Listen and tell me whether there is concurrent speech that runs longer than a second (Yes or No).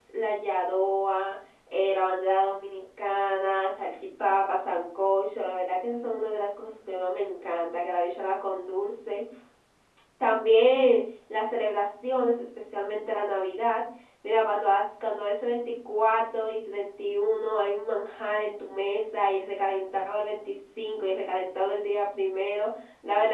No